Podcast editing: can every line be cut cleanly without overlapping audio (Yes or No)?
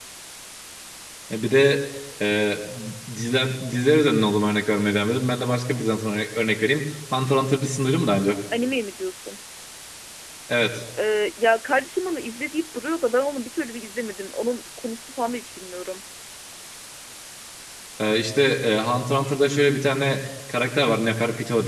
Yes